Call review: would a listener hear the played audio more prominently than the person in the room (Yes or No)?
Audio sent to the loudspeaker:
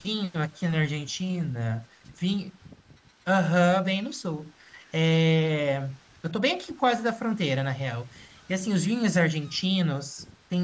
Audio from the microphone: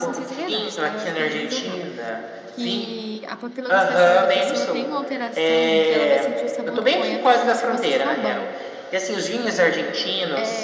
Yes